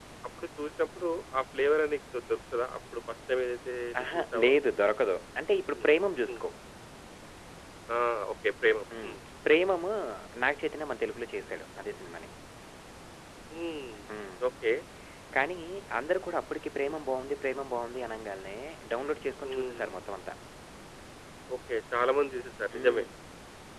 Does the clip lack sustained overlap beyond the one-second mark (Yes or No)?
Yes